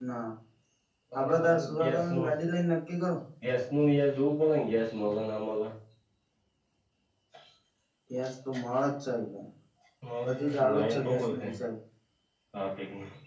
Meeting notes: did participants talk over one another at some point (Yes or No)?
Yes